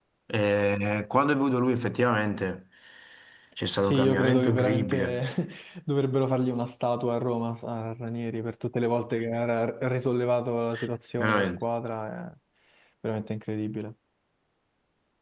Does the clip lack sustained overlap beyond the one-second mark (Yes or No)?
No